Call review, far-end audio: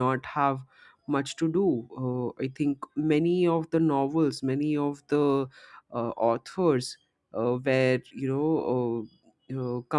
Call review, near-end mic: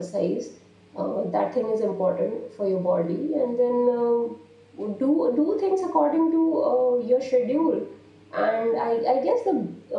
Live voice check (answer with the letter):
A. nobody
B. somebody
B